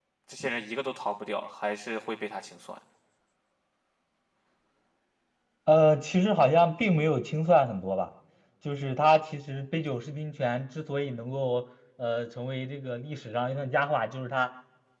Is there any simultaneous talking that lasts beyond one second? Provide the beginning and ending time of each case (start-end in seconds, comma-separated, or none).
none